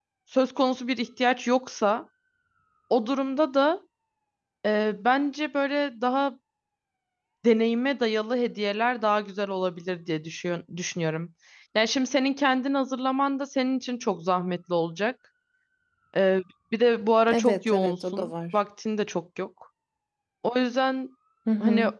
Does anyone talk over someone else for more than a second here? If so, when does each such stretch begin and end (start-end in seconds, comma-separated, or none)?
17.3-18.6